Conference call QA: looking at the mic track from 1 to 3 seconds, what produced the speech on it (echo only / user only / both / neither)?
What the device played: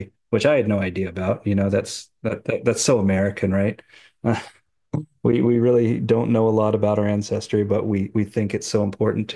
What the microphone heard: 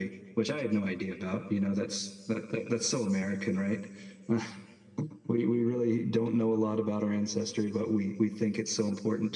echo only